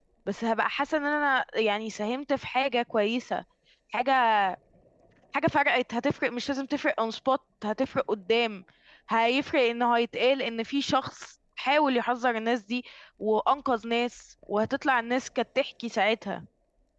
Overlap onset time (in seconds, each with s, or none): none